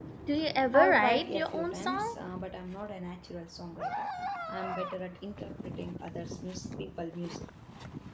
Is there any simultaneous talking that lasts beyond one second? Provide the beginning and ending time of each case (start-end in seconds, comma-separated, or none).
0.7-2.1